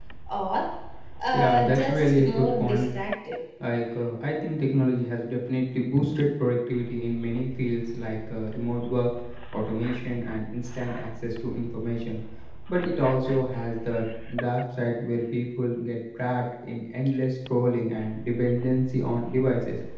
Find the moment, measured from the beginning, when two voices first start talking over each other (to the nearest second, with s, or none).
1 s